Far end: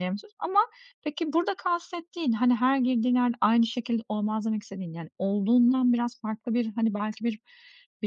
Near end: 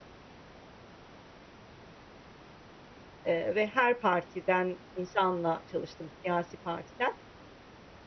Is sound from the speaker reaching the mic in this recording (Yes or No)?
No